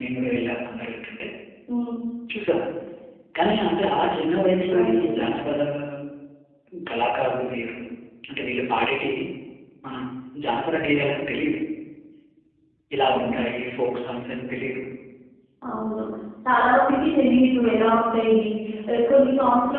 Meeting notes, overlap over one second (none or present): none